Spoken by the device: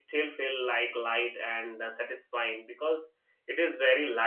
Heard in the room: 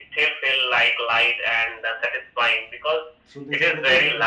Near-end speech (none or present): present